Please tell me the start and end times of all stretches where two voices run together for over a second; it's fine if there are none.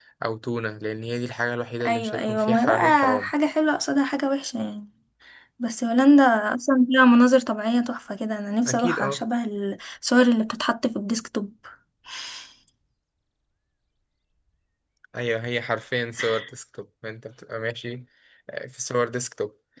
1.9-3.3

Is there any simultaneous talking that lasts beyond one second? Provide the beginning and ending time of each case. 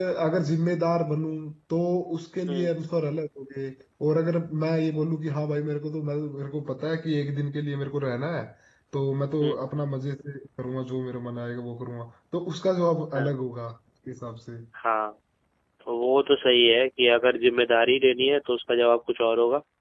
none

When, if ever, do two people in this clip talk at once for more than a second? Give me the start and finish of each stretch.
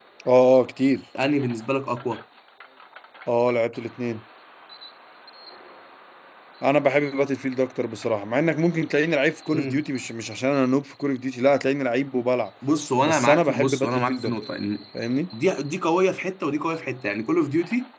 13.0-14.3

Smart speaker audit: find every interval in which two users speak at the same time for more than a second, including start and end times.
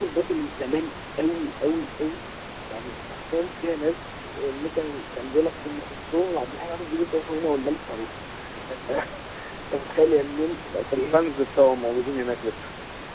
none

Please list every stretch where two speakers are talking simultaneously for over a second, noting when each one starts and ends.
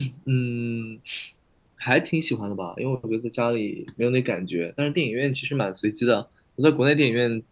none

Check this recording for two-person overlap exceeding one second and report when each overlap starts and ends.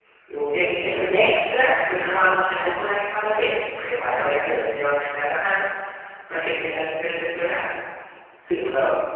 none

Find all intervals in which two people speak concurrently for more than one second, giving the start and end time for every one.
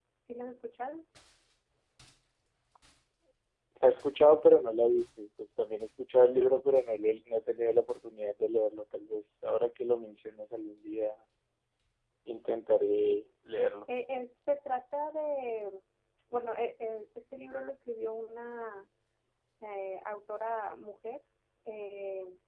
none

